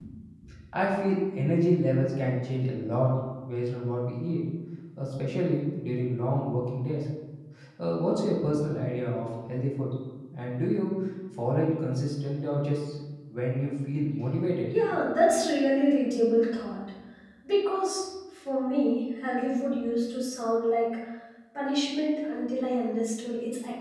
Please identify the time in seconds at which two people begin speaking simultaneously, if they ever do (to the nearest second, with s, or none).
none